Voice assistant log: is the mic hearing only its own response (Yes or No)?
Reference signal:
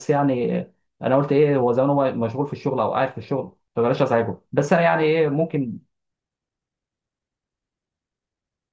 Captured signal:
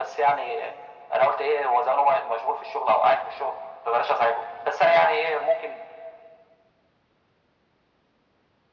Yes